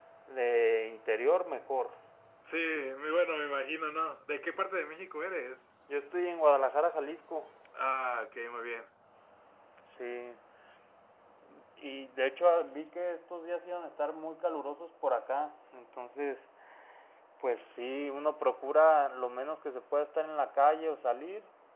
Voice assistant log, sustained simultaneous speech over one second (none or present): none